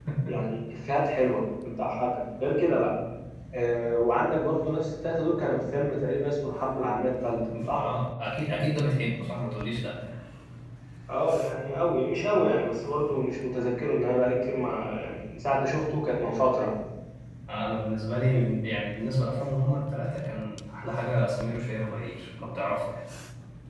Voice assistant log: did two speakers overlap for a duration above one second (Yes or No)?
No